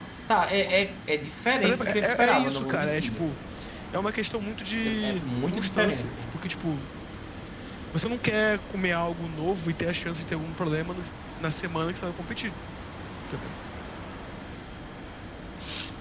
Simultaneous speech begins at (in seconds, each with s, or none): 1.6 s